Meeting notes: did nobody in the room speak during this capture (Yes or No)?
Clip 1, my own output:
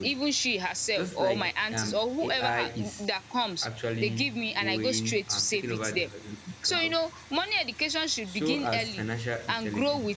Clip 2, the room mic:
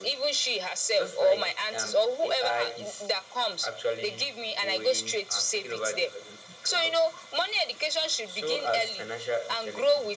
Yes